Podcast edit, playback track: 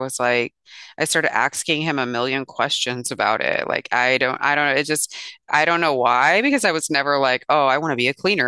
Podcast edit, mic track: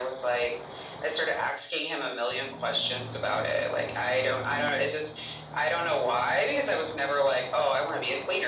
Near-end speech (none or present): none